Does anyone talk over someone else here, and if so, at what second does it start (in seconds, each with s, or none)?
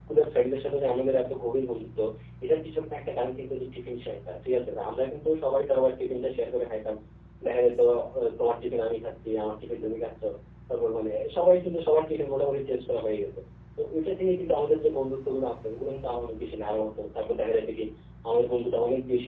none